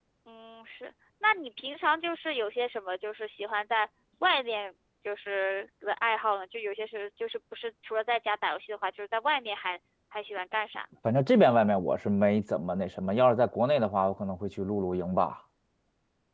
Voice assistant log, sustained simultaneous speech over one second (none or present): none